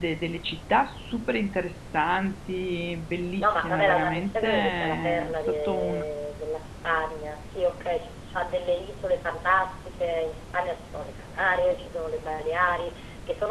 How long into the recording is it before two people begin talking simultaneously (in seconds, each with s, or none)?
3.4 s